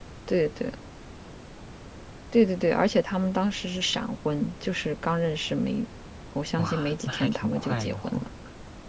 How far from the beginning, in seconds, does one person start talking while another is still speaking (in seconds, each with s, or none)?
6.6 s